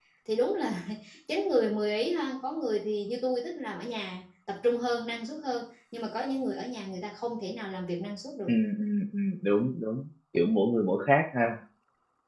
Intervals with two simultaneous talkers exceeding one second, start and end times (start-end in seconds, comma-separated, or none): none